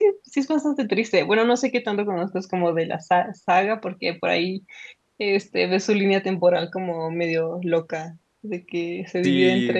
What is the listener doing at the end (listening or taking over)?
taking over